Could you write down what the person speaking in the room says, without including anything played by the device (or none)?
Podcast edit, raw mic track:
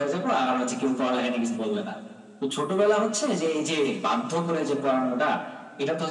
none